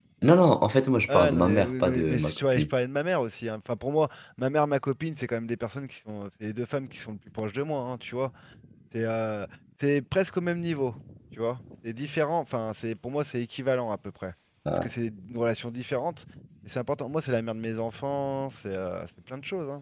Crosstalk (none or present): present